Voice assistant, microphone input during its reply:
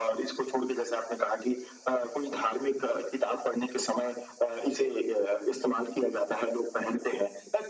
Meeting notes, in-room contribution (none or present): none